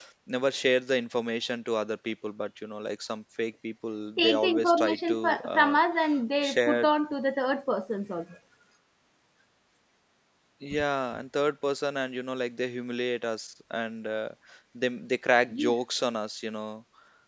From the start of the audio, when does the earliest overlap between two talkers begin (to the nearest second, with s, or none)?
4 s